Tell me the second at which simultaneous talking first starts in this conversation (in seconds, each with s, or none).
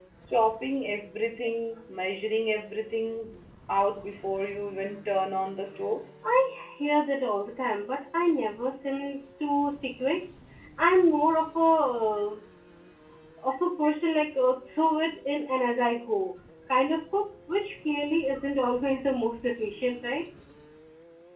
none